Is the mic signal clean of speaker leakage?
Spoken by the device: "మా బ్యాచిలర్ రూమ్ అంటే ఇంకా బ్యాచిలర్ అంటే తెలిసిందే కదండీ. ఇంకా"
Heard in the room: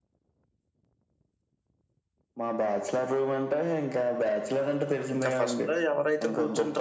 No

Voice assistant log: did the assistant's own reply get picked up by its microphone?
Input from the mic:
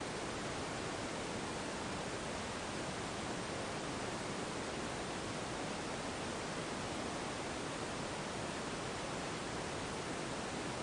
No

